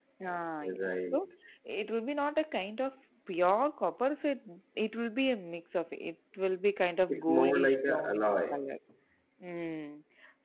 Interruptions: present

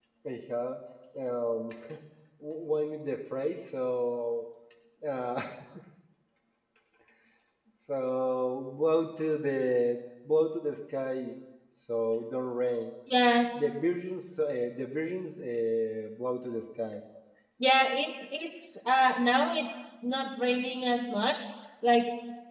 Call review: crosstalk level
none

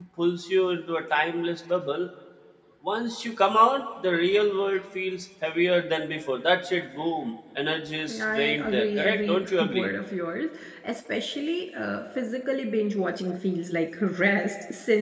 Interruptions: present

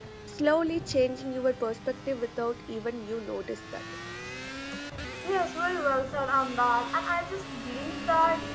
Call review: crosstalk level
none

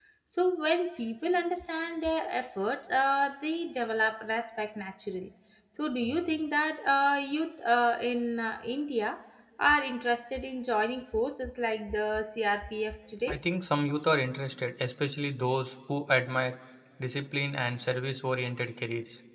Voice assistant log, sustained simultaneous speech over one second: none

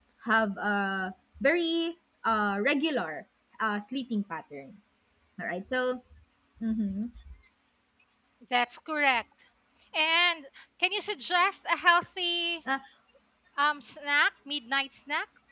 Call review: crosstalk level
none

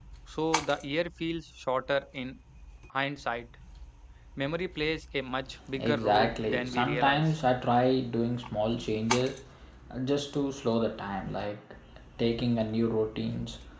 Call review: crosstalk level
present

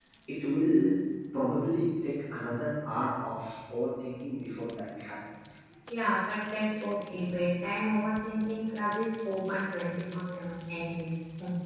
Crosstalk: none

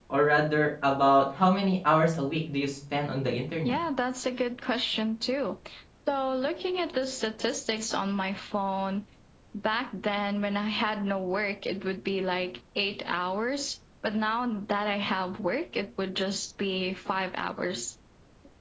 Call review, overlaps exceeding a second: none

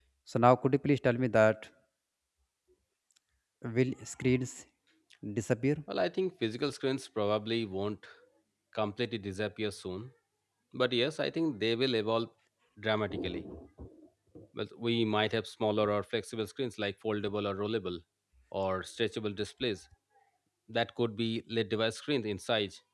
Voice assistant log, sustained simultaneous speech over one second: none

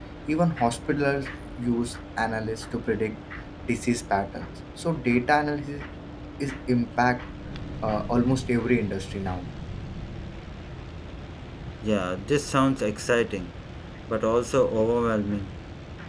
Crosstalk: none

